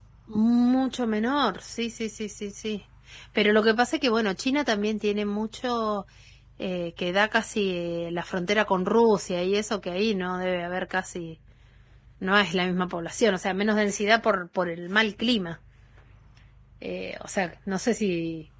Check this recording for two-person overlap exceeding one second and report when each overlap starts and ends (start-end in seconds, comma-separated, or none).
none